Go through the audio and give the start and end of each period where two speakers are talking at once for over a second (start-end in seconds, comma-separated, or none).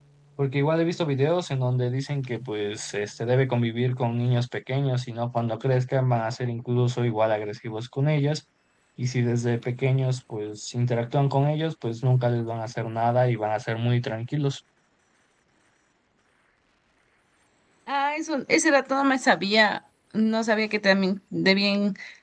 none